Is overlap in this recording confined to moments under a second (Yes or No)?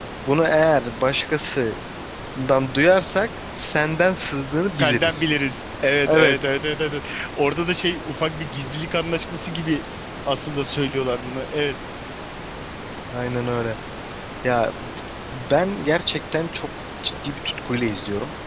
Yes